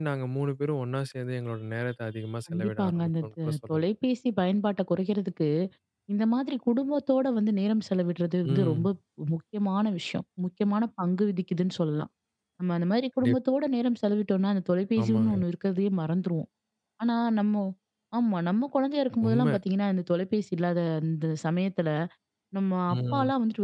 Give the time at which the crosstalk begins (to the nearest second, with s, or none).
3 s